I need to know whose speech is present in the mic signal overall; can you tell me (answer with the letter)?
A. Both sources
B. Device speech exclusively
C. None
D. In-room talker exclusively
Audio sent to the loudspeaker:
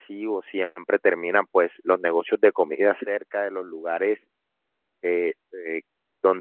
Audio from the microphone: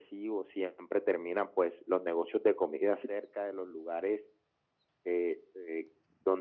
B